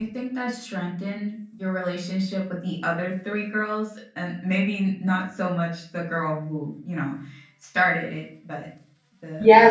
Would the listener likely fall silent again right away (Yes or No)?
No